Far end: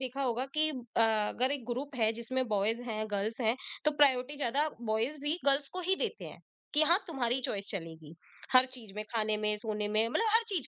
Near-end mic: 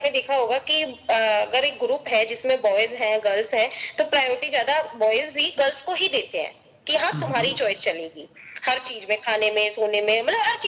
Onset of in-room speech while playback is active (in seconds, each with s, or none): 7.1 s